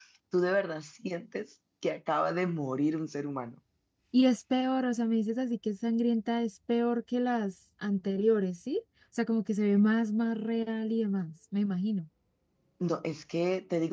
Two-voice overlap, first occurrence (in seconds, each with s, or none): none